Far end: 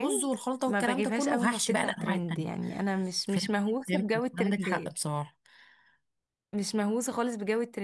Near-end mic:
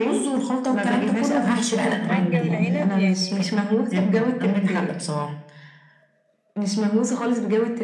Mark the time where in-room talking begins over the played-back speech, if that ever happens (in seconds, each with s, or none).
1.8 s